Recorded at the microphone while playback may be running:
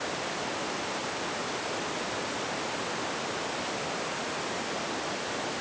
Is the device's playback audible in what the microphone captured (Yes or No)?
No